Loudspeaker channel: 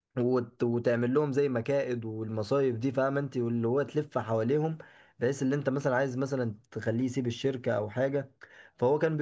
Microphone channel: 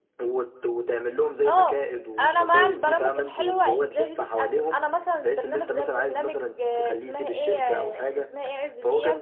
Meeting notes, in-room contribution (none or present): present